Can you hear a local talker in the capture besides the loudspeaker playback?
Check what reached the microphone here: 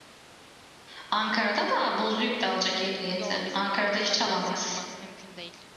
Yes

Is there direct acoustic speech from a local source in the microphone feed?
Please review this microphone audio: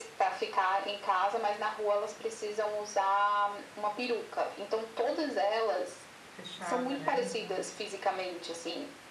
Yes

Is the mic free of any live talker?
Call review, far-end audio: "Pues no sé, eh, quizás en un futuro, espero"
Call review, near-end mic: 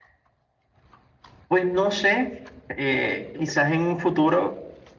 Yes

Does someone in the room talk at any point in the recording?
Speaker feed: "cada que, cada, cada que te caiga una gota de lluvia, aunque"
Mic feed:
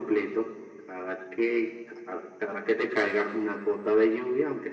No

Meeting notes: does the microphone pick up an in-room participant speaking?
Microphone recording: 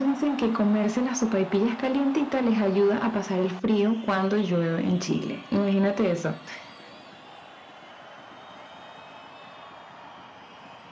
No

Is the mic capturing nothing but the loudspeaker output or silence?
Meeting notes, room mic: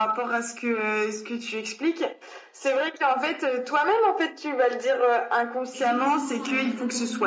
No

